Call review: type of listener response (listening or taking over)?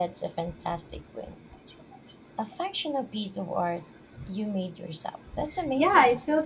taking over